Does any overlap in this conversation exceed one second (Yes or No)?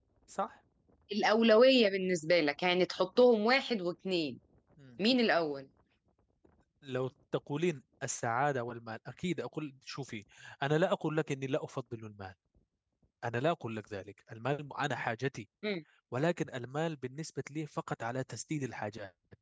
No